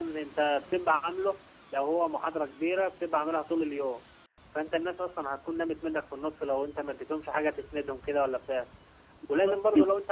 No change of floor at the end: Yes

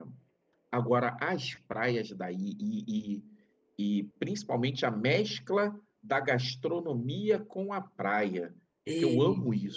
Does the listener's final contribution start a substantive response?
No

